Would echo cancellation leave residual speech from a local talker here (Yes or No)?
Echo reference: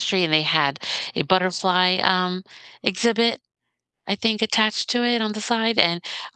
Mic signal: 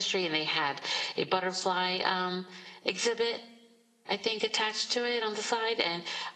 No